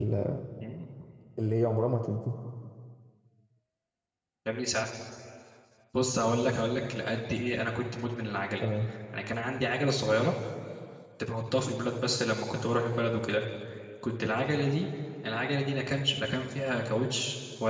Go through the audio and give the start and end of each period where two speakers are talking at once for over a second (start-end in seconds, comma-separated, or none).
none